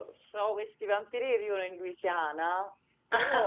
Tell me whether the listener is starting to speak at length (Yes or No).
No